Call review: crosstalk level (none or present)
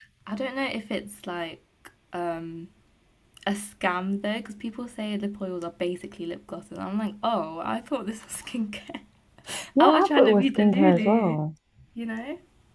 present